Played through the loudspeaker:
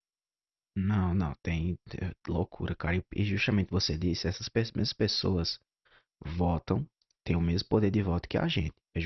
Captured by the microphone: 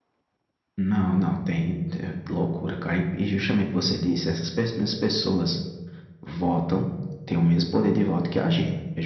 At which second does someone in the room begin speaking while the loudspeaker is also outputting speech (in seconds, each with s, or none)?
none